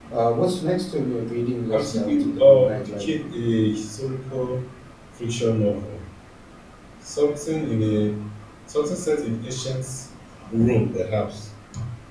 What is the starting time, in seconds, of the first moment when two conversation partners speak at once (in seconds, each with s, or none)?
1.7 s